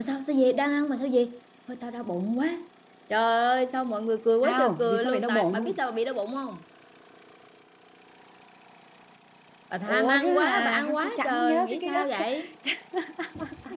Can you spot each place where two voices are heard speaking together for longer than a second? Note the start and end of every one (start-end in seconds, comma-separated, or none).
4.4-5.8, 9.8-12.2